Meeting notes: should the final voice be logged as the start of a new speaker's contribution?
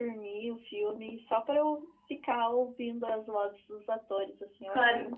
Yes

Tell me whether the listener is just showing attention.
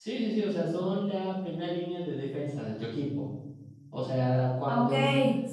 No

